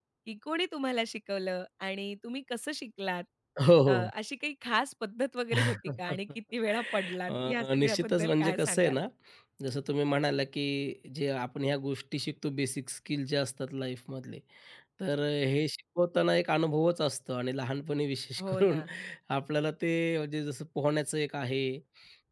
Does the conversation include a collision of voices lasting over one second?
Yes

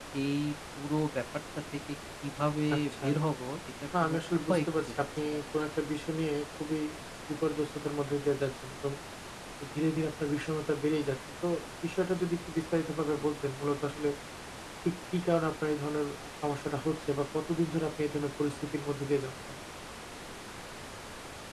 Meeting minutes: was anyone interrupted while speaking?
Yes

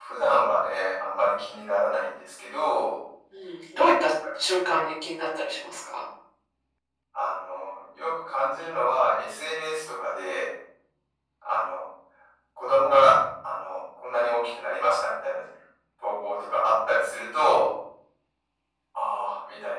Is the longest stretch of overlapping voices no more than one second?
Yes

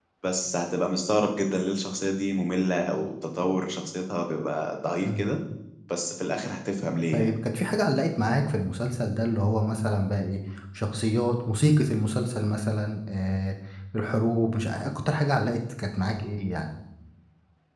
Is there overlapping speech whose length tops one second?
No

